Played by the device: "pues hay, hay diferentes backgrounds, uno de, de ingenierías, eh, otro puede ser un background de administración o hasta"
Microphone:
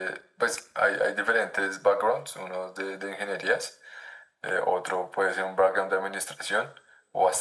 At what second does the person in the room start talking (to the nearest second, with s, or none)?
none